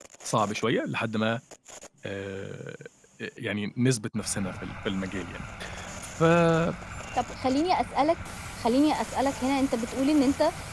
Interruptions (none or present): none